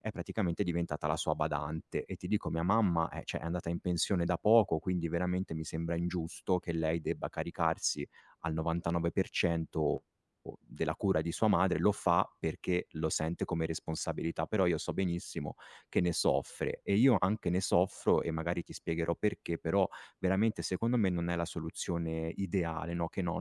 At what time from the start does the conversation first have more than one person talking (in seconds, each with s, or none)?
none